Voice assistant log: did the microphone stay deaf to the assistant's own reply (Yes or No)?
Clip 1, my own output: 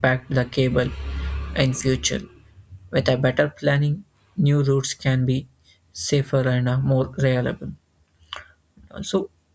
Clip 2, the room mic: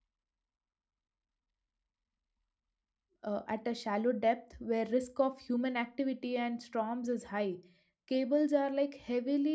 Yes